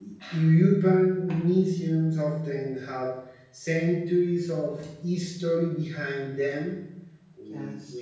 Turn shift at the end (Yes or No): No